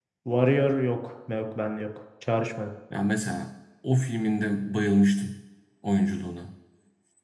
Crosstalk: none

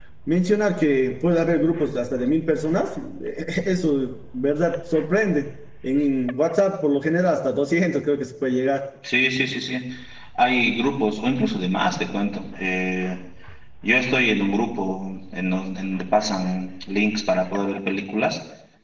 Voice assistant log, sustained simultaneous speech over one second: none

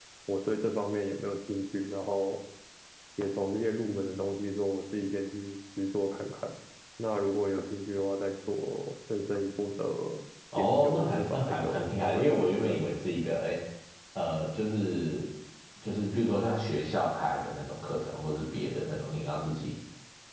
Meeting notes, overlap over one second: present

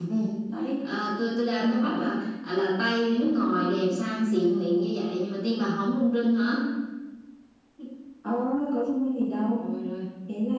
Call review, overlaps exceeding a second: none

